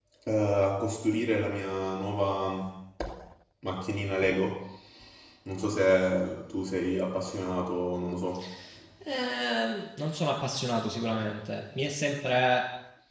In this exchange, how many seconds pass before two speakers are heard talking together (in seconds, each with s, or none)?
none